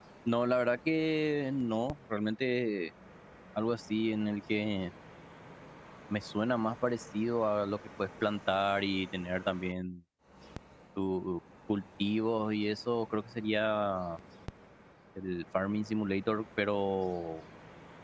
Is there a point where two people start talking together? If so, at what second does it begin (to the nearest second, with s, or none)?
none